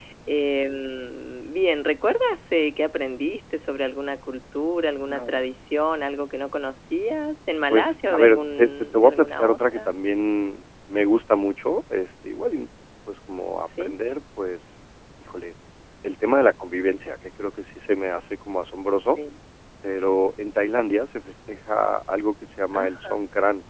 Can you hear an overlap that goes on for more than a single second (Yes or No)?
Yes